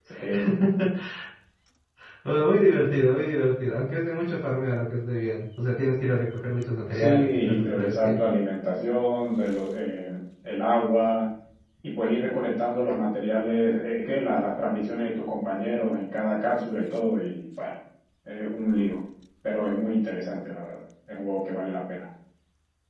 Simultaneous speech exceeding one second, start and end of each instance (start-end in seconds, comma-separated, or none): 6.9-8.2